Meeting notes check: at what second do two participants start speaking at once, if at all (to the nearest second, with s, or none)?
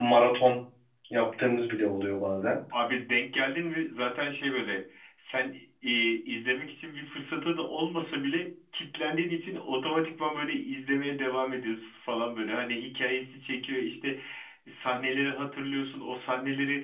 none